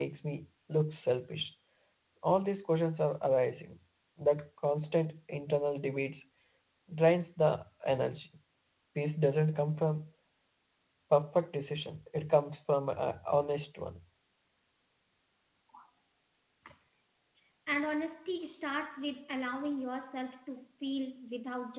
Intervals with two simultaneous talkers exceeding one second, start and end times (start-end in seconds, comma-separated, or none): none